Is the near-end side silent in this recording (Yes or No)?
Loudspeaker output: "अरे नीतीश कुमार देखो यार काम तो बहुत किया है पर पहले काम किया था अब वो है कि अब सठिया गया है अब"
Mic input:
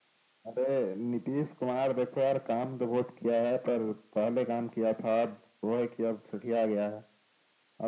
Yes